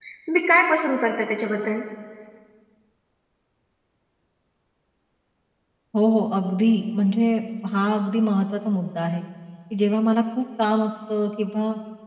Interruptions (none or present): none